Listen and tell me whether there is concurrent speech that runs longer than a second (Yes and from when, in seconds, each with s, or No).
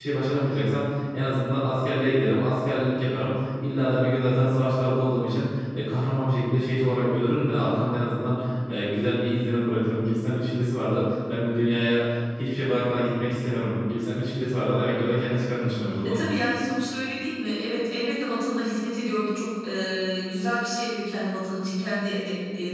No